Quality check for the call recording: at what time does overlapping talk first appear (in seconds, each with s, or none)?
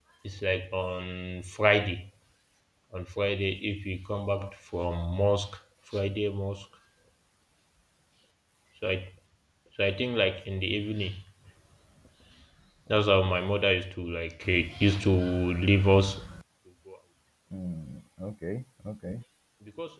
none